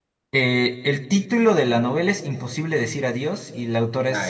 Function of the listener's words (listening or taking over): taking over